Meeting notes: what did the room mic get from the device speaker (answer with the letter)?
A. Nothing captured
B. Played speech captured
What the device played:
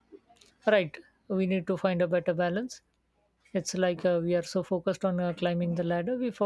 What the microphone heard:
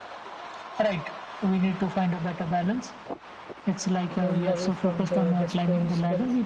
B